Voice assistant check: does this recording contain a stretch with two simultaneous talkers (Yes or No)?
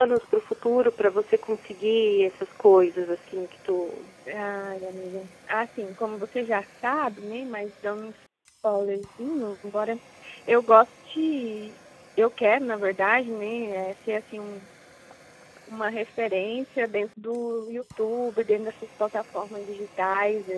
No